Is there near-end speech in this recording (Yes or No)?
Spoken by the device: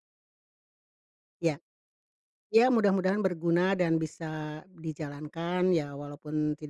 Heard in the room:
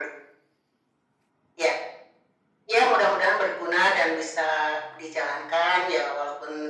No